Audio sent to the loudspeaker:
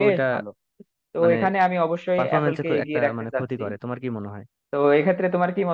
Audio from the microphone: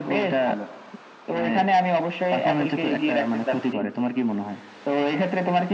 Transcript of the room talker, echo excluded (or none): none